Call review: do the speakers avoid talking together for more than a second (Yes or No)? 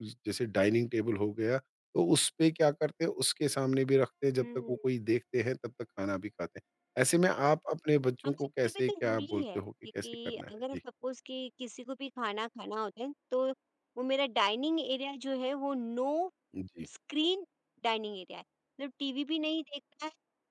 No